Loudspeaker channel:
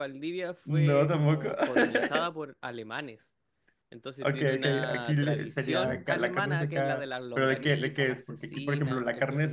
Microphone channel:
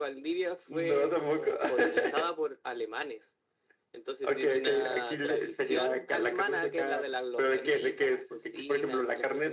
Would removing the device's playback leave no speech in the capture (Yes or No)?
Yes